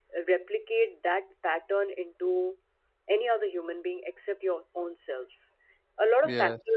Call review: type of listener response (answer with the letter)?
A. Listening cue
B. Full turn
A